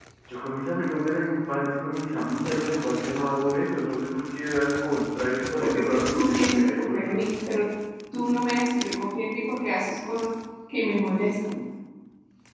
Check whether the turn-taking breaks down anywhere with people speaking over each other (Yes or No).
Yes